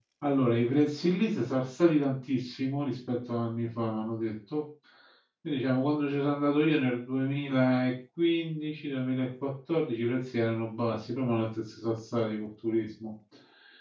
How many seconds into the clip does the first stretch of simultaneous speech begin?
none

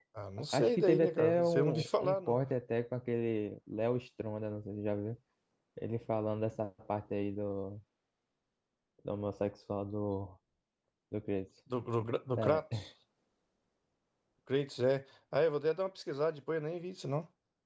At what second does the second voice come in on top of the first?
1 s

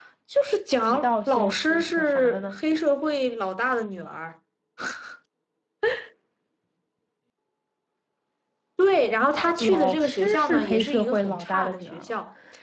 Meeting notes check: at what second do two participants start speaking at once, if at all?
1 s

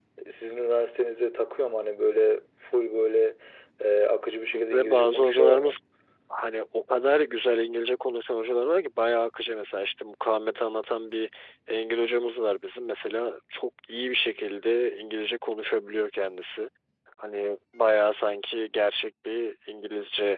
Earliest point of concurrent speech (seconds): 5 s

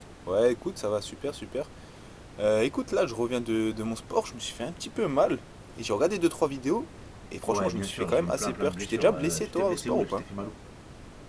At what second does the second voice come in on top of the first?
7 s

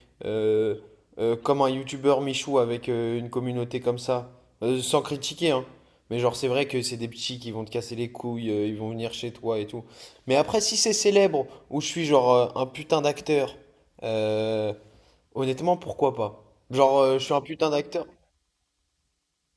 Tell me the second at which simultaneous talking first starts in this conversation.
none

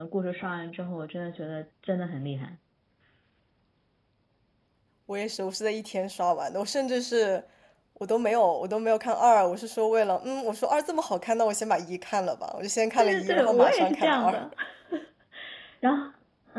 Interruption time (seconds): 13 s

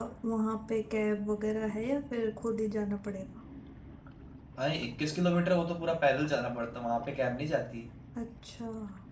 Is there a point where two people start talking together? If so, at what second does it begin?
none

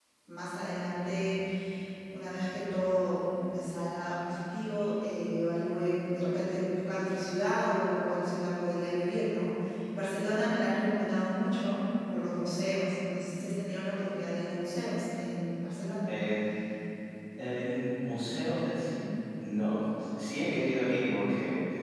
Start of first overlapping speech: none

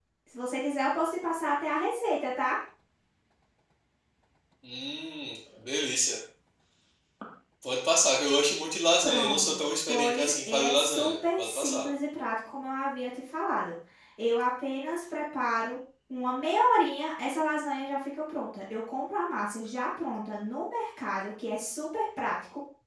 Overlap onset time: 9 s

